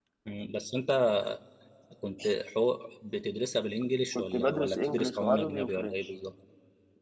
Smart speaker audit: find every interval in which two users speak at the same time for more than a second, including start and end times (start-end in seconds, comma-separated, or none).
4.2-6.1